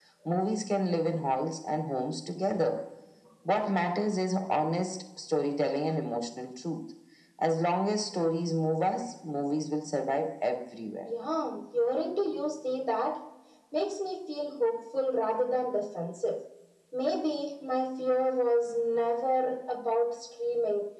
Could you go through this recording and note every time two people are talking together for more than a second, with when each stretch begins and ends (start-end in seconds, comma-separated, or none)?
none